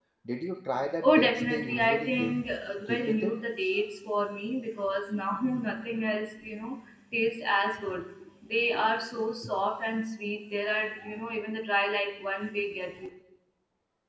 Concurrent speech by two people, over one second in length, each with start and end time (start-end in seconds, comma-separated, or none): 1.0-2.4